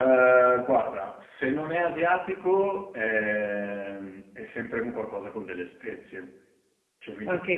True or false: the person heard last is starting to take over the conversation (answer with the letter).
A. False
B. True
B